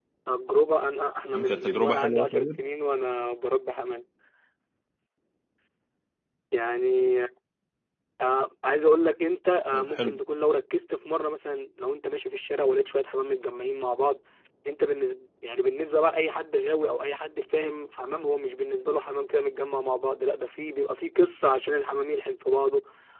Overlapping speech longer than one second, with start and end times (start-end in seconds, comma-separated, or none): 1.3-2.6